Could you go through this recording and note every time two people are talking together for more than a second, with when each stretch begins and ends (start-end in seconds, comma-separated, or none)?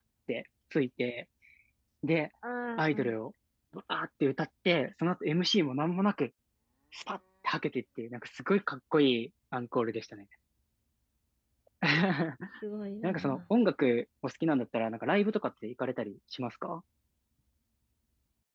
none